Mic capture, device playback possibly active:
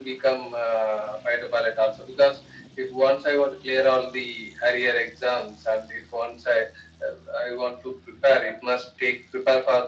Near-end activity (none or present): none